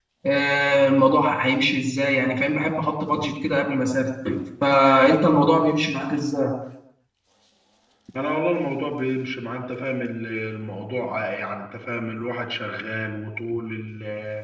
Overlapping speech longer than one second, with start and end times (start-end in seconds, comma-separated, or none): none